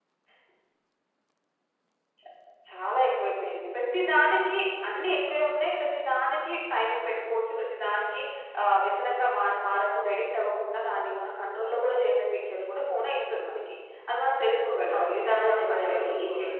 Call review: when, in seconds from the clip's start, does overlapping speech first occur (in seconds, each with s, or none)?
14.9 s